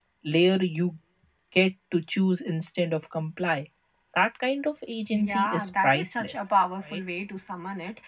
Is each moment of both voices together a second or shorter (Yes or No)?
No